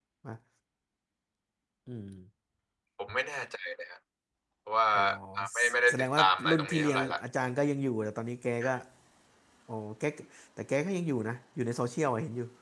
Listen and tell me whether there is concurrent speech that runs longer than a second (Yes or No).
Yes